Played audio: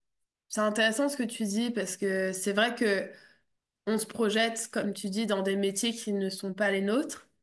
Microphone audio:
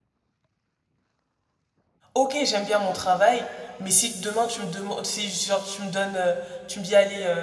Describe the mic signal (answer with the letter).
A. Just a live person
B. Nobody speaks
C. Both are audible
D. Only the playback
A